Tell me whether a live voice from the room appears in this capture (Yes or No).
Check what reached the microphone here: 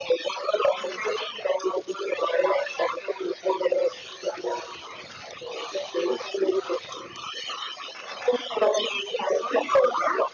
No